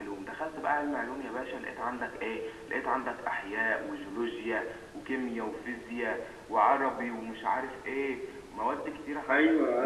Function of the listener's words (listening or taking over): taking over